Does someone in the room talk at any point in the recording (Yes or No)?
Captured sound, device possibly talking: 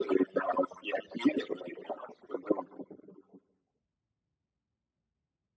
No